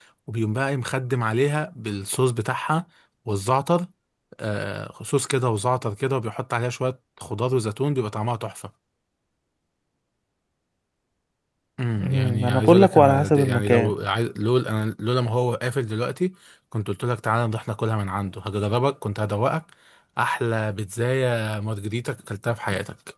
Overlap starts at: 12 s

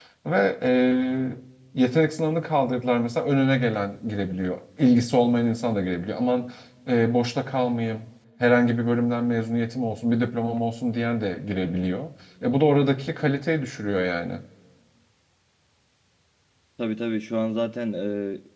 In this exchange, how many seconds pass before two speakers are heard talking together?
none

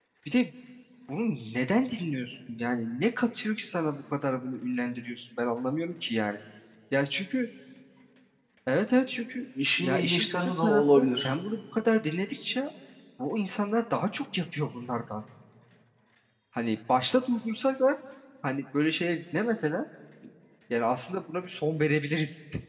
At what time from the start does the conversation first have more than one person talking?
10 s

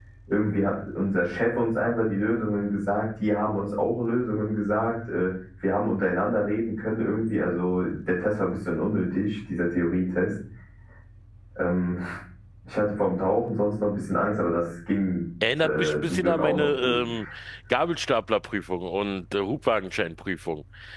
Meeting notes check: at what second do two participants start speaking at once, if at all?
15 s

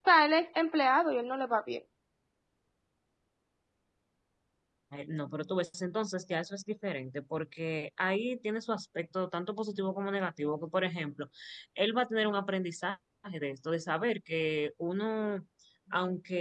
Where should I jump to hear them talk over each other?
none

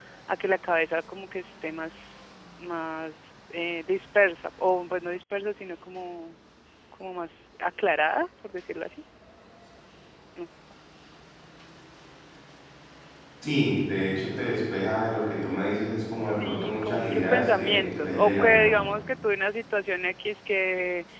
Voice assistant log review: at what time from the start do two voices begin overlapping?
16 s

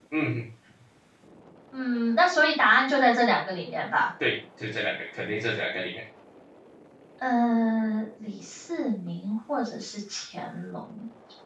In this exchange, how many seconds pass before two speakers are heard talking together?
none

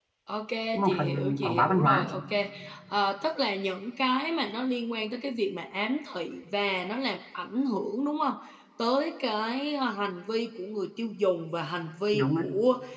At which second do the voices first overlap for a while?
1 s

